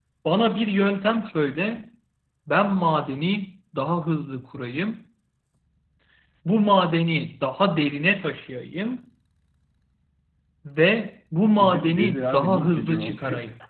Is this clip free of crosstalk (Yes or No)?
No